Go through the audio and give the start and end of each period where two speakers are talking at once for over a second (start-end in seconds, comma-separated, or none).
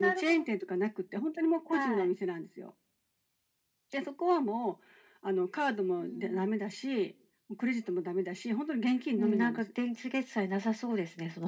none